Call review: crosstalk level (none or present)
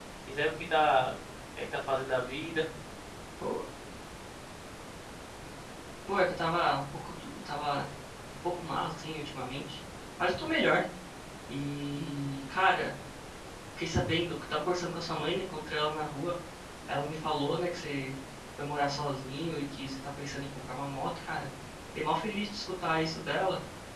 none